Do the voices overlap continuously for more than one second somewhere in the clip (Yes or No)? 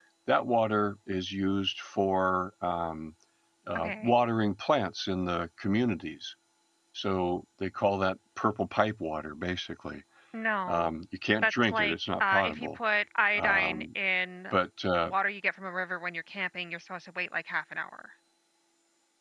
Yes